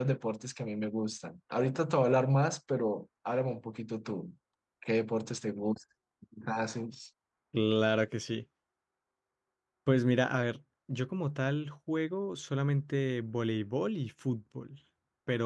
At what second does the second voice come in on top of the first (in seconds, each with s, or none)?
none